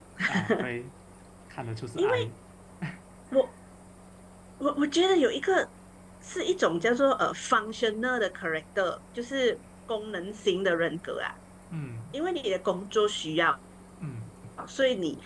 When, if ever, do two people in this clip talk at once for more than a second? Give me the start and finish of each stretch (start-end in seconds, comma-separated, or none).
none